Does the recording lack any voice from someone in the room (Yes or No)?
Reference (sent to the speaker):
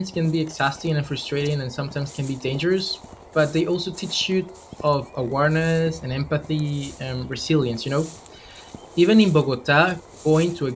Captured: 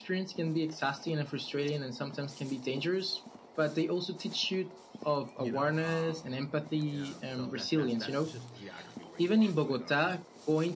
No